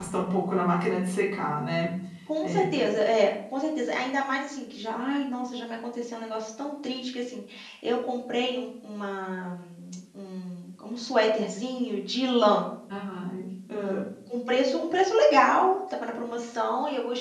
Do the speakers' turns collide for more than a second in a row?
No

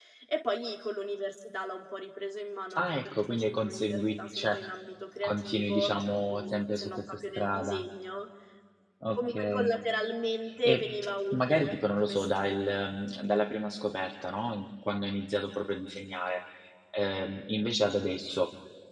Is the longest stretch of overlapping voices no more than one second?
No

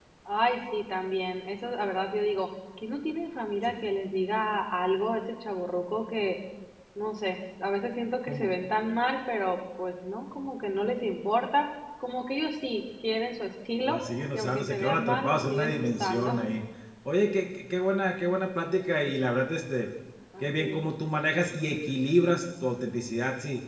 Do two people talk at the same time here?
Yes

